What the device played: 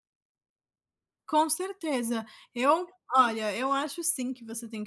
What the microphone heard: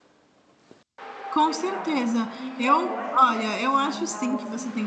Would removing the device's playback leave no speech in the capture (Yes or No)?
No